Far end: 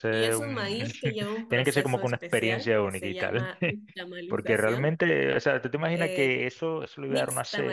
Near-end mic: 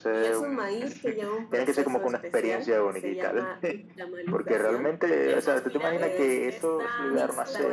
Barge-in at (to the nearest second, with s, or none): 5 s